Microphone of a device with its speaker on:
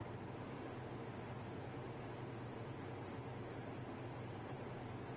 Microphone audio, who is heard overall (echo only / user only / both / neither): neither